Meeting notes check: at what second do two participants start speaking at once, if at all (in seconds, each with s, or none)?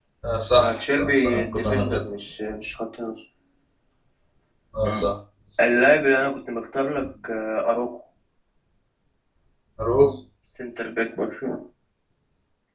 0.6 s